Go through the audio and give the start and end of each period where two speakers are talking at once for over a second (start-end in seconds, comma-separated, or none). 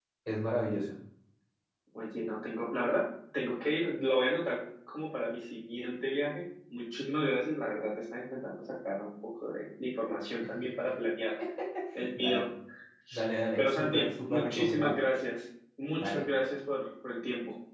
13.6-15.0